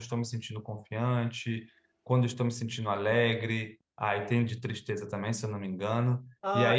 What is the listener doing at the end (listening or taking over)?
taking over